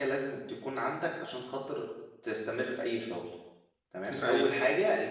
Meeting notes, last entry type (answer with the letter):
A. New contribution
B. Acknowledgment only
B